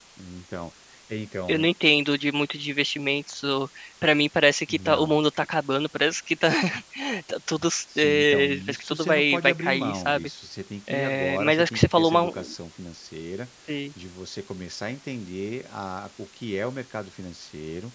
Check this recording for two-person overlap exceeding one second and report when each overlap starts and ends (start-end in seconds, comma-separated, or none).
8.0-10.3, 10.9-12.5